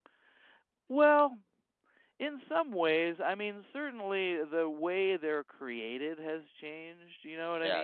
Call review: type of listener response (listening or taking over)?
taking over